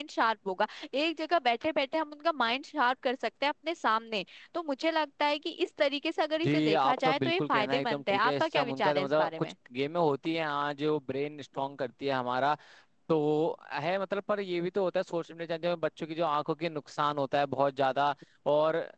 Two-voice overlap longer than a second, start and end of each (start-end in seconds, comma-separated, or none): 6.4-9.5